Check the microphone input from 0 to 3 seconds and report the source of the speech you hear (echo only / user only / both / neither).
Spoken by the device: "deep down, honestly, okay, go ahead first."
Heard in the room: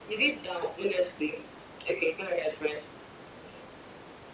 echo only